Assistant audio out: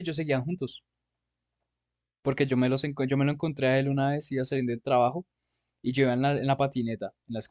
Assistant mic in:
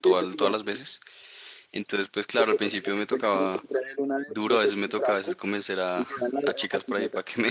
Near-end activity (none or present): present